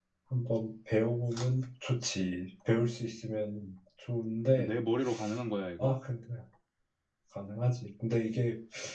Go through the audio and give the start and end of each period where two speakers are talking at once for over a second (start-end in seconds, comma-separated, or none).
none